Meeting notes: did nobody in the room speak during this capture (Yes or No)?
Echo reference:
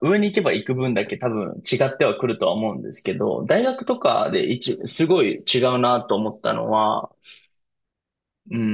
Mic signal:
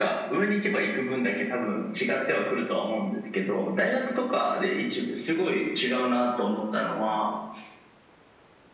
Yes